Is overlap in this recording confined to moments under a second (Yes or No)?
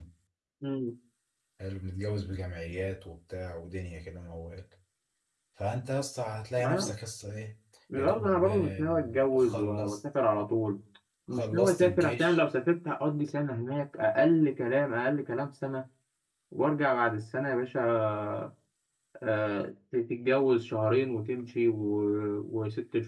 No